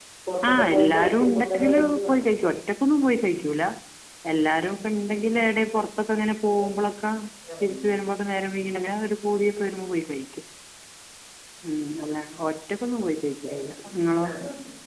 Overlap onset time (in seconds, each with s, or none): 0.5 s